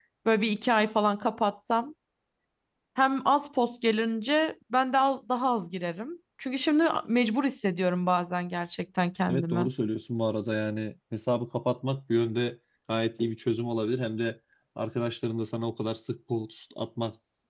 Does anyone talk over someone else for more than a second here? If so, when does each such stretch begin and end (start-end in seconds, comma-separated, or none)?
none